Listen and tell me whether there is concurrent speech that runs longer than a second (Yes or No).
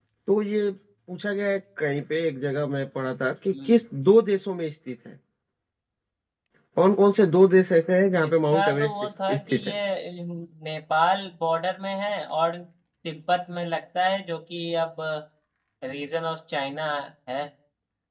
Yes